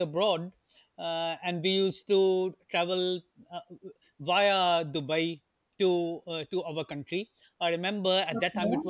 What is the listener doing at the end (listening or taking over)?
listening